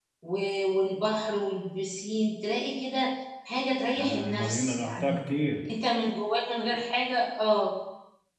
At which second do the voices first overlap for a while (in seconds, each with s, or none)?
3.9 s